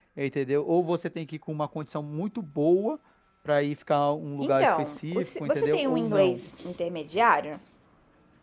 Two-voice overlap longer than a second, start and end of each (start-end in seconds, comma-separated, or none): 4.4-6.4